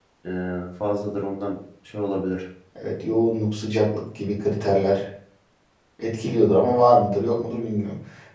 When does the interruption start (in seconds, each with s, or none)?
none